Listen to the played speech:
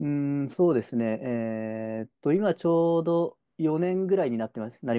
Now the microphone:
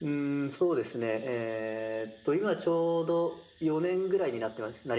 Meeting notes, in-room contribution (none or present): none